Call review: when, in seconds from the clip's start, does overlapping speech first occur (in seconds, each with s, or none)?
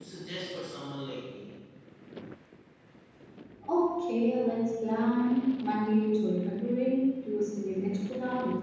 none